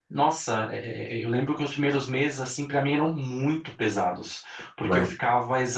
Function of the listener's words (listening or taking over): listening